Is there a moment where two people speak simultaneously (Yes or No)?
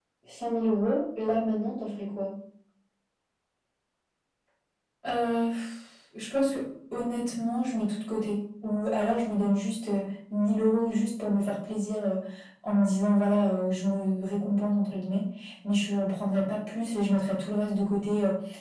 No